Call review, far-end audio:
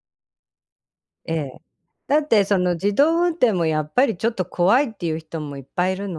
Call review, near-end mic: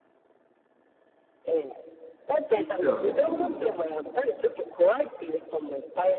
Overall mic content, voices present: both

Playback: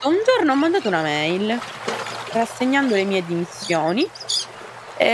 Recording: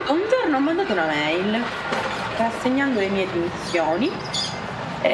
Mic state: echo only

